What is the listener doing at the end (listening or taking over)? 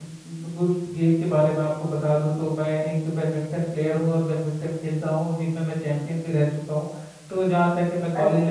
taking over